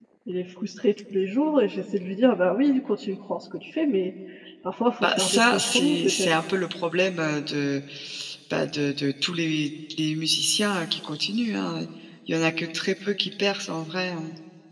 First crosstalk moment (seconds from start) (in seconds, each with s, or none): 5.0 s